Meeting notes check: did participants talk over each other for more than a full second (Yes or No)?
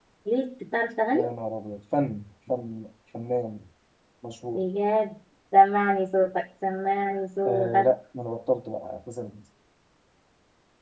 No